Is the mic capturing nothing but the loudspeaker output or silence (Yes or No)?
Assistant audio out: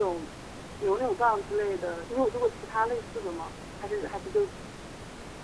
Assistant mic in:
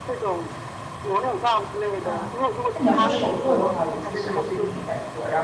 No